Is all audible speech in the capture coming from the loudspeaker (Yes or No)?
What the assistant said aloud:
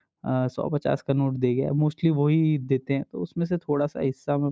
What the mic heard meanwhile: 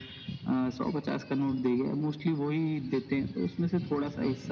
Yes